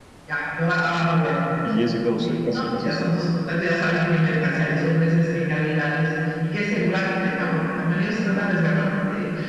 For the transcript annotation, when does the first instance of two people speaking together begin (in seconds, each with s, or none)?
2.2 s